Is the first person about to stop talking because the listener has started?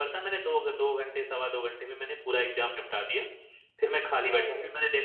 No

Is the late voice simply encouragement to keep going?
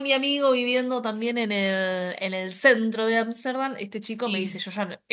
Yes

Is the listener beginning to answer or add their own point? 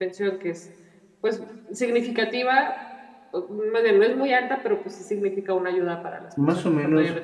Yes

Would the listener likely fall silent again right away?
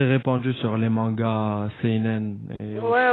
No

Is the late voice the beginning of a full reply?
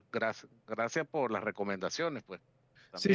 Yes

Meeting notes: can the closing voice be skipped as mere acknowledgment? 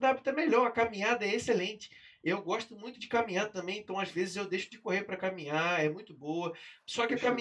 Yes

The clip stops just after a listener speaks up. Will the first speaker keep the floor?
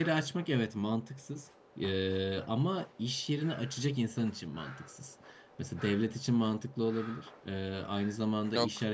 Yes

